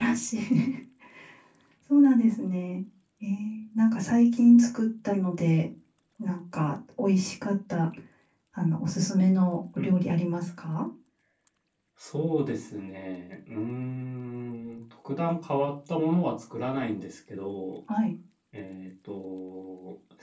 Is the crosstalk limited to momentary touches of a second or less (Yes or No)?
Yes